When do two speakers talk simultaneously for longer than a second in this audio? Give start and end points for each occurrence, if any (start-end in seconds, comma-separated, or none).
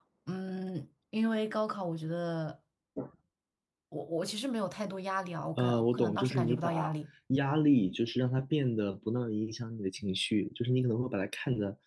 5.6-7.0